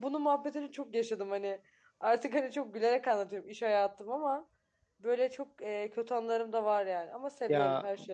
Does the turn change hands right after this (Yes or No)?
Yes